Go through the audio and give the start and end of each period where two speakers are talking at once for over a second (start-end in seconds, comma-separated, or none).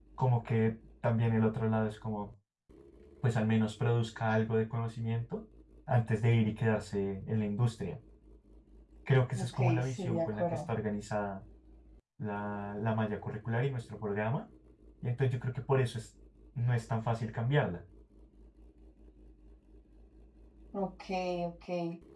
9.4-10.6